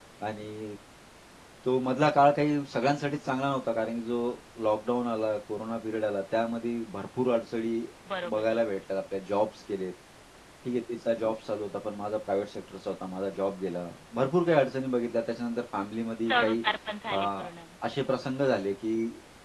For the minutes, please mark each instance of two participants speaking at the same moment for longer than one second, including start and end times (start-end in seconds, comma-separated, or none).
none